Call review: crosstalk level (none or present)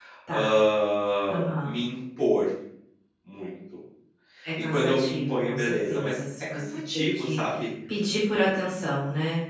present